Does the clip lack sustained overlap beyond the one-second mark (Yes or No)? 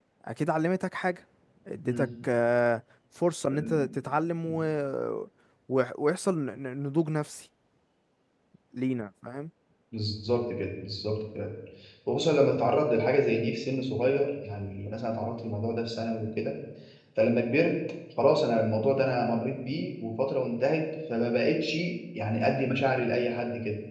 Yes